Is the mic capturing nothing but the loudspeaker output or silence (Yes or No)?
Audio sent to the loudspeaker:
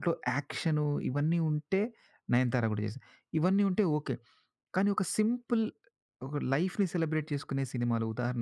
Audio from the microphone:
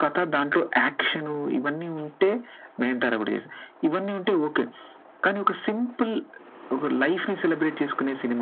Yes